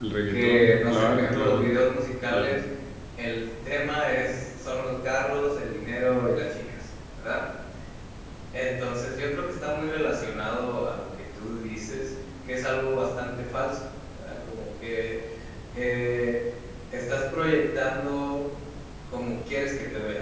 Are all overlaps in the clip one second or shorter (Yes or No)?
No